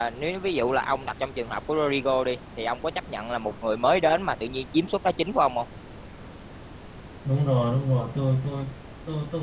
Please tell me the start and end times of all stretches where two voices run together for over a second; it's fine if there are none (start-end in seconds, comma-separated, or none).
none